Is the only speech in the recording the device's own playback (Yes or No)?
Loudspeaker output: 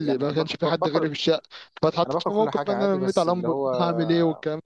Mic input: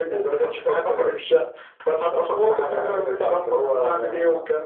No